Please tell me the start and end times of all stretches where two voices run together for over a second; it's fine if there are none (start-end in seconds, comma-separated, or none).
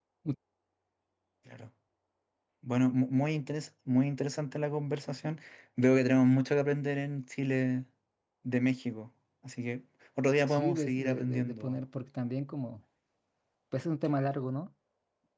10.5-11.8